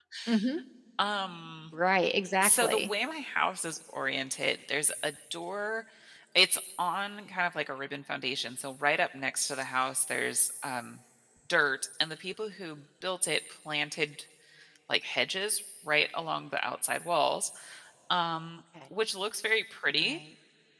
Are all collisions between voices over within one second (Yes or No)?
Yes